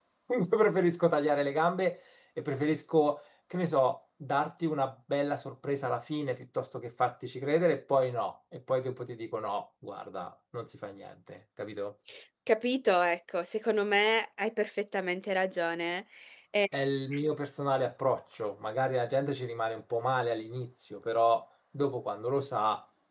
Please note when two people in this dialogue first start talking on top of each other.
none

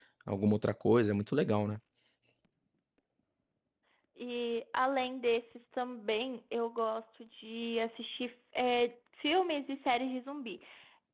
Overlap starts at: none

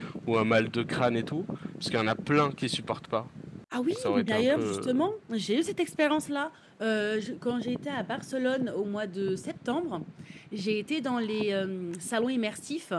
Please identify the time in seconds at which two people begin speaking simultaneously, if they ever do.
3.9 s

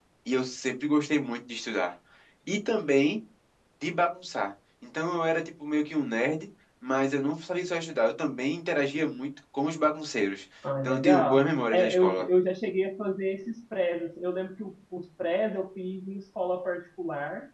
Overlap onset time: 10.6 s

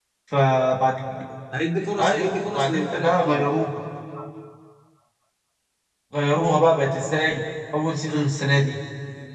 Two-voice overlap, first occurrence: 2.0 s

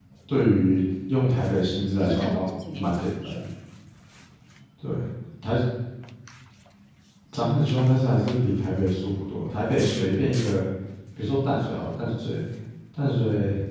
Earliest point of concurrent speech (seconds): 2.0 s

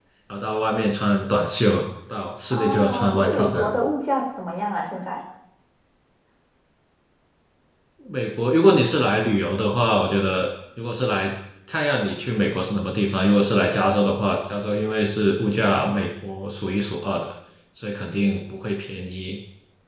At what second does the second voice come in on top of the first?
2.5 s

